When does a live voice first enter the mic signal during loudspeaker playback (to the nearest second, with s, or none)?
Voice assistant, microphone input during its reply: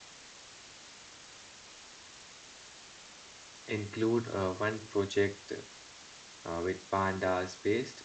4 s